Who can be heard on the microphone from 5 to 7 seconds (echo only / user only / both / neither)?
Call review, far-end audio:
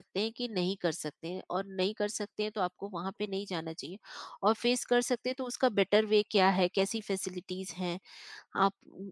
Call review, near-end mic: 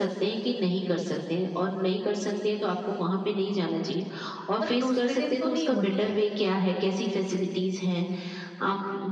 both